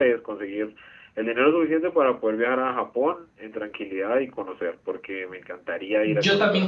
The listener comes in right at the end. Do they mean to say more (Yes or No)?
Yes